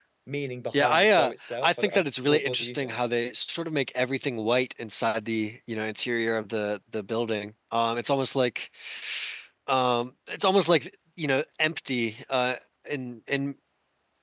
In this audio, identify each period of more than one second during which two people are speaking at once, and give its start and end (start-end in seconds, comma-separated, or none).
0.7-3.0